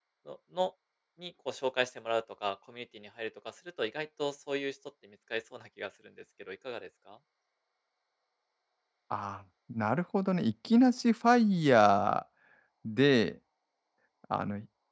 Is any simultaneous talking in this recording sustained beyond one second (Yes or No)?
No